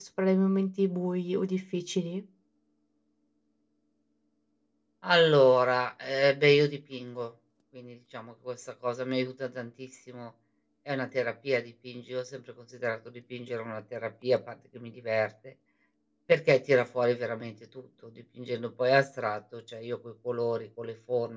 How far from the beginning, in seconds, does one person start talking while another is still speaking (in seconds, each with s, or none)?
none